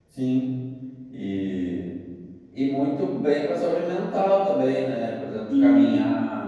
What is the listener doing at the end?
listening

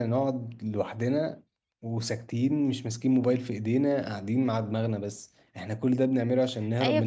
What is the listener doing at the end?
taking over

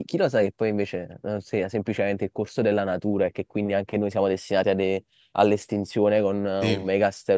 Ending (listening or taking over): listening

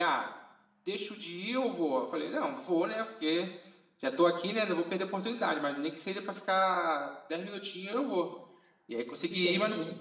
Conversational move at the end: listening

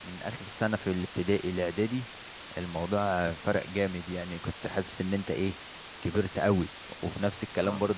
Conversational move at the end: listening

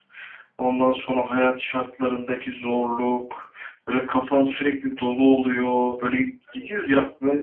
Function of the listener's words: listening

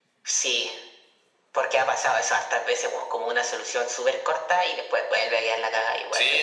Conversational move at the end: taking over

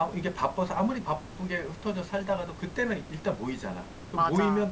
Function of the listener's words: listening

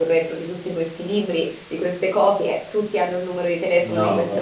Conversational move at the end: taking over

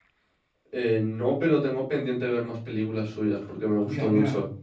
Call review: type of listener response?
taking over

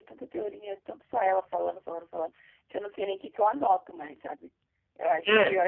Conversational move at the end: listening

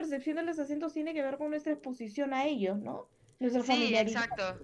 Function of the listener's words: taking over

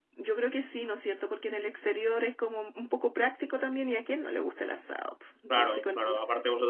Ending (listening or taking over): taking over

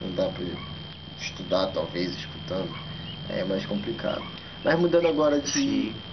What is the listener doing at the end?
listening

